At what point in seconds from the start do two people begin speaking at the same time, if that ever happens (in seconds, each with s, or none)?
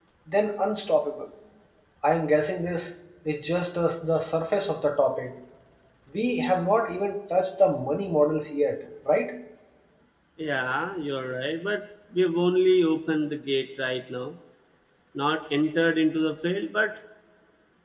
none